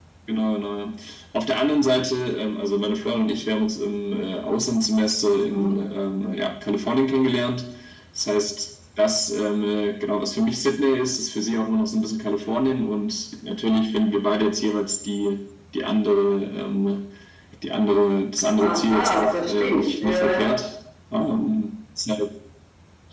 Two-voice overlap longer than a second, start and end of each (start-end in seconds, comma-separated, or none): 18.6-20.5